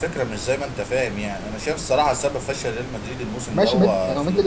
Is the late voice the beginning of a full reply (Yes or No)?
Yes